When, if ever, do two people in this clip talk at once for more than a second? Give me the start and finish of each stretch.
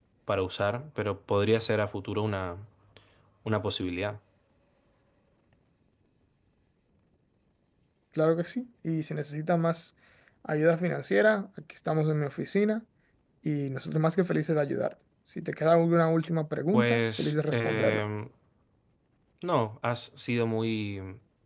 16.7-18.0

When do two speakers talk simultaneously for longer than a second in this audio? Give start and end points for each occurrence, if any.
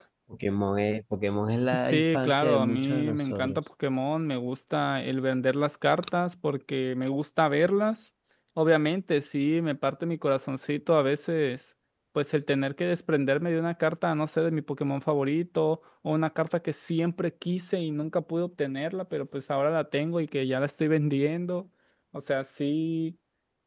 1.7-3.6

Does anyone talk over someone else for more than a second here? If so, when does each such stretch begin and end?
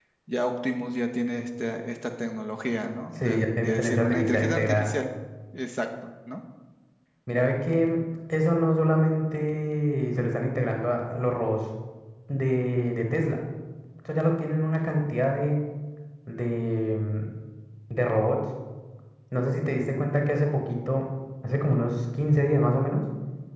3.1-4.9

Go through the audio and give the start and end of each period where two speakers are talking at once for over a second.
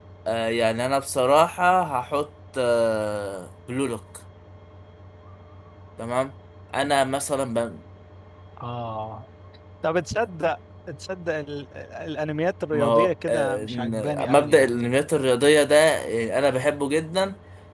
12.7-14.8

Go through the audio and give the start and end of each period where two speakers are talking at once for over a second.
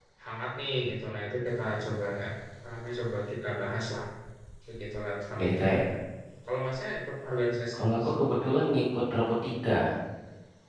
none

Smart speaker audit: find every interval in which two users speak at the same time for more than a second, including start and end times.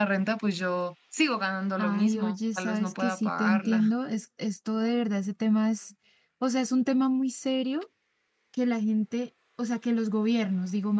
1.8-3.9

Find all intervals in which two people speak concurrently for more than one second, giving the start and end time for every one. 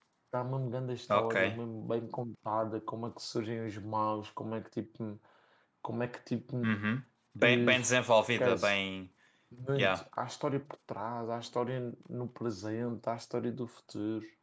none

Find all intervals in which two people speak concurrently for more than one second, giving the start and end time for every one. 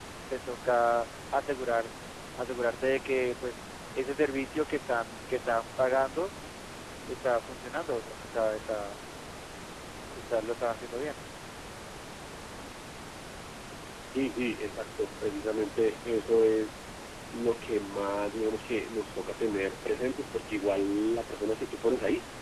none

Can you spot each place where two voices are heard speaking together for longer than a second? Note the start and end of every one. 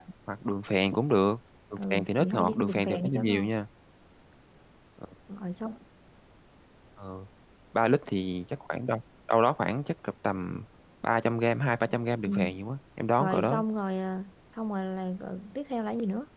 1.8-3.5

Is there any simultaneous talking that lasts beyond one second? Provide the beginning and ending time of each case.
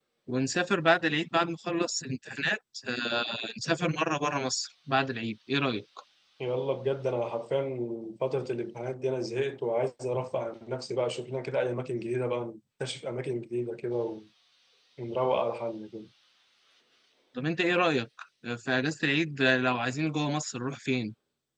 none

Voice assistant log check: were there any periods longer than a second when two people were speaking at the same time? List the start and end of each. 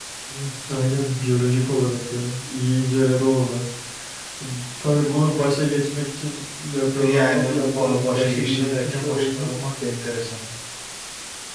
6.9-9.6

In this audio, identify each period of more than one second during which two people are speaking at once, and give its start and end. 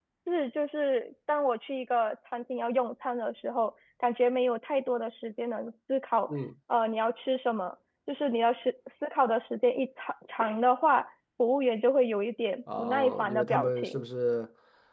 12.8-14.0

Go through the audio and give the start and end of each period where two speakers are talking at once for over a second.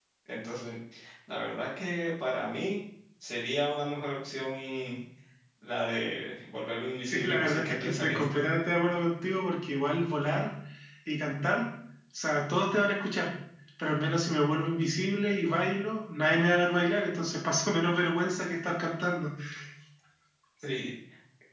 7.0-8.4

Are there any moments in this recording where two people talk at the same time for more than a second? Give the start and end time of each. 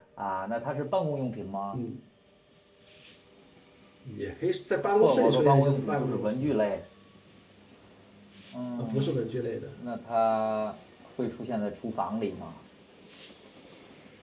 5.0-6.5

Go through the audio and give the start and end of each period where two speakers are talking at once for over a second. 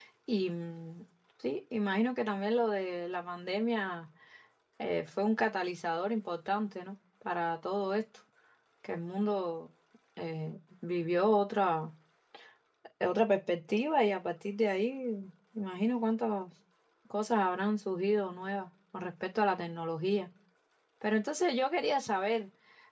none

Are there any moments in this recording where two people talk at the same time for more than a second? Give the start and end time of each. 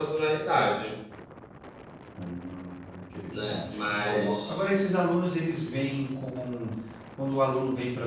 3.3-4.7

